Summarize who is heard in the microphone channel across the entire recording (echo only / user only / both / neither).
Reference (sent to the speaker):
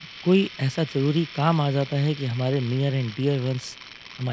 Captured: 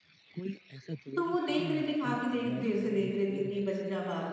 both